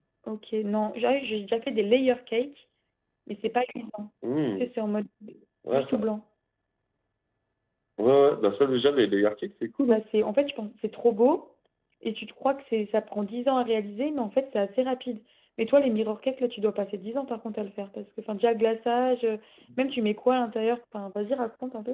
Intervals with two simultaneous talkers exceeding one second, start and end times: none

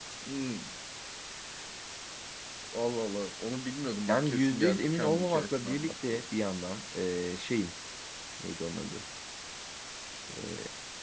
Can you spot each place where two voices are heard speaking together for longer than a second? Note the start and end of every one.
4.1-6.2

